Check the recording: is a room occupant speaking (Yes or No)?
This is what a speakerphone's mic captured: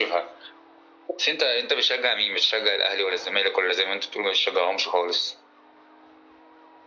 No